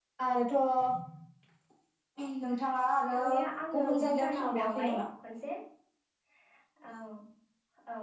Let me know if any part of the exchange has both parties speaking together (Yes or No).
Yes